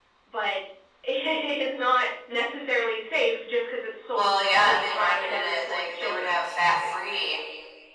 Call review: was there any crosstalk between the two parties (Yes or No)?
Yes